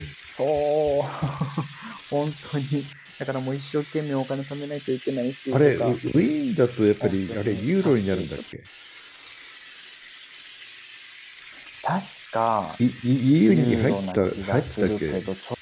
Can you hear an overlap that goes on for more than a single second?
Yes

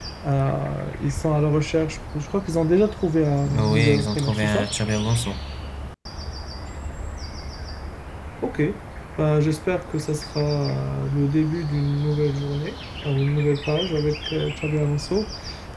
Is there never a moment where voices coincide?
No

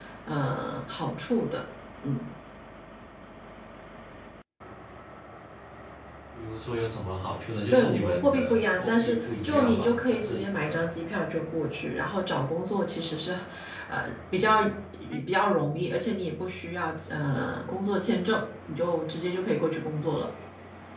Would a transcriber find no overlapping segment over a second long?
No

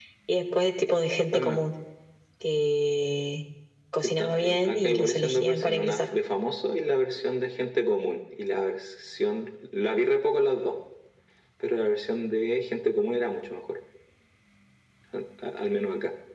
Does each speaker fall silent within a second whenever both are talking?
No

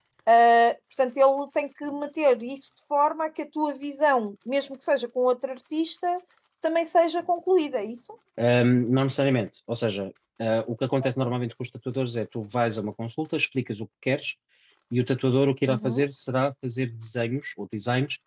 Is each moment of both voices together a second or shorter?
Yes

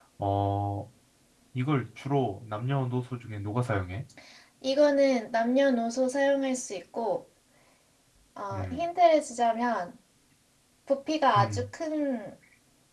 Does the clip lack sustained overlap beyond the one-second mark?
Yes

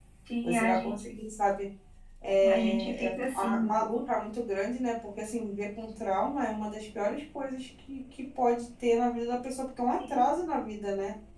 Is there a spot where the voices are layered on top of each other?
Yes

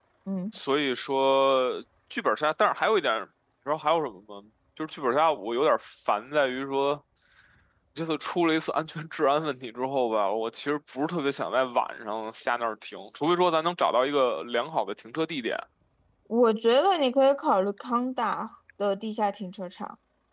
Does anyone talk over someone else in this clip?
No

